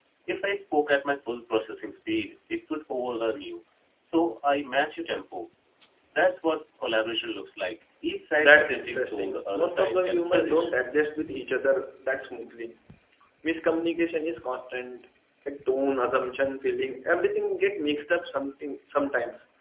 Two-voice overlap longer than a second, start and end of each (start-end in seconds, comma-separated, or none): 8.4-10.7